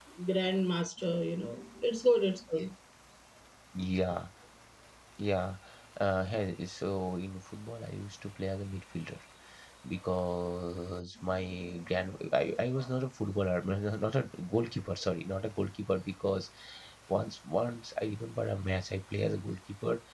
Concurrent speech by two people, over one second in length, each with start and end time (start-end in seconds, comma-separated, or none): none